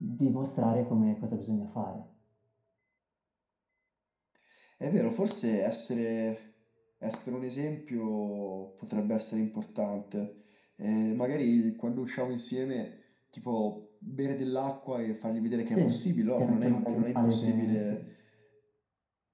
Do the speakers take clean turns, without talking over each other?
No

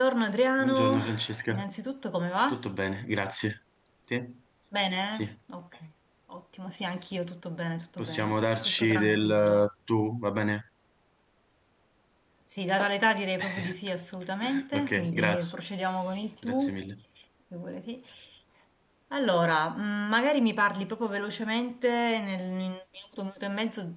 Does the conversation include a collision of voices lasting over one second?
Yes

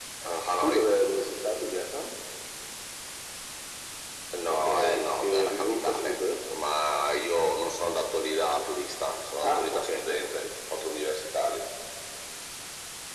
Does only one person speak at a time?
No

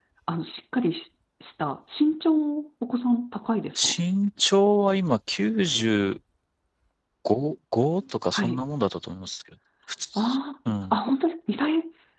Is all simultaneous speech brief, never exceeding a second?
Yes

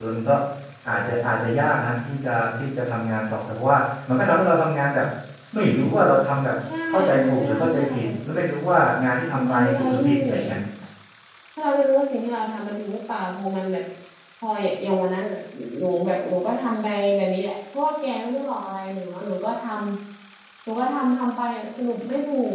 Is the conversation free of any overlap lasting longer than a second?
No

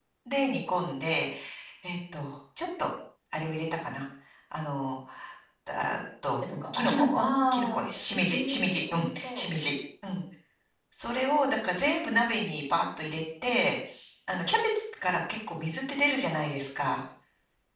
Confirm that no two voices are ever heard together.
No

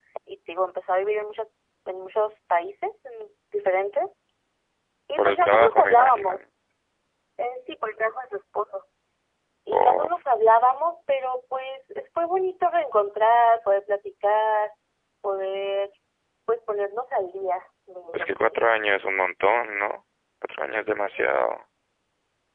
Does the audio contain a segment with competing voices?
Yes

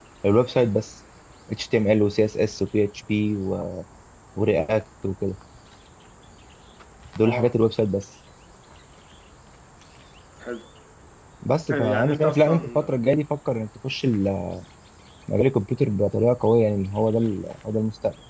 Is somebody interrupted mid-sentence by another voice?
Yes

